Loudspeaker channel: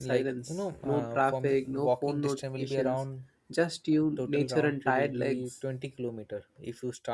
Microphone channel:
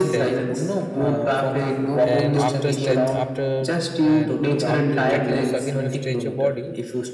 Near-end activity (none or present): present